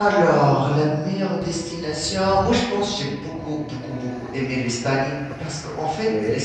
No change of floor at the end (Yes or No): Yes